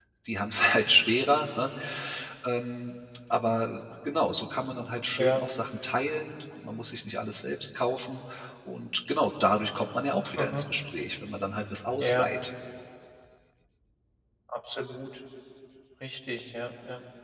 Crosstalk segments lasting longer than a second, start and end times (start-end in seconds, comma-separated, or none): none